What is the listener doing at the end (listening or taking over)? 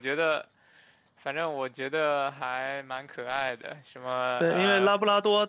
taking over